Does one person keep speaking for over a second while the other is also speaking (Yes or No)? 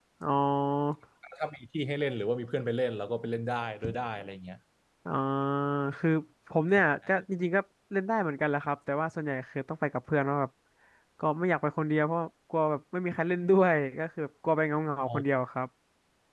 No